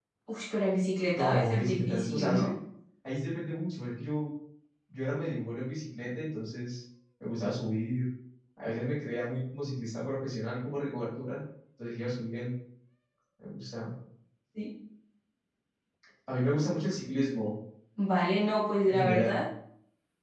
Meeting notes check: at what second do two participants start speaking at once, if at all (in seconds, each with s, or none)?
1.1 s